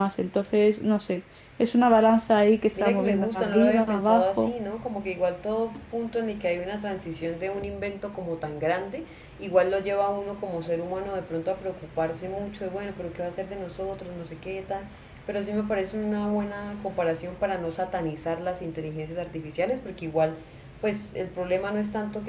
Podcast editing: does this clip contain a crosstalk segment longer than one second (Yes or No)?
Yes